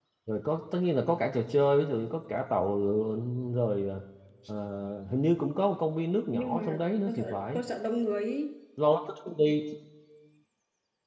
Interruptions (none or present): present